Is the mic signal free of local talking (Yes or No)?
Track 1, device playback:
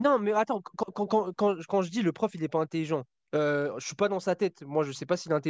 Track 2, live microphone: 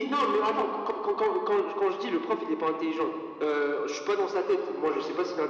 Yes